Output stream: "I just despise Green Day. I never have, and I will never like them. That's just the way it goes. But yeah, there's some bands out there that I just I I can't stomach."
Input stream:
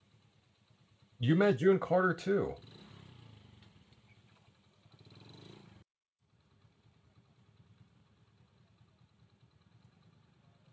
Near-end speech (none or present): present